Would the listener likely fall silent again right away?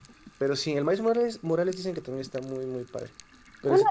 No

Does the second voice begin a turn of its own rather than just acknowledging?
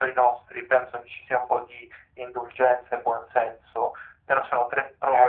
Yes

